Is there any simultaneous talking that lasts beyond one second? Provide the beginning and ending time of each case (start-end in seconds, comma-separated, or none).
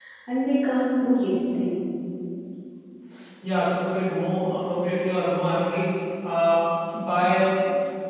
none